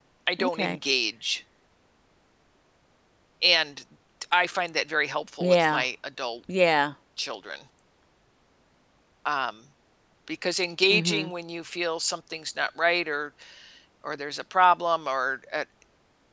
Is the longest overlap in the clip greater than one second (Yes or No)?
No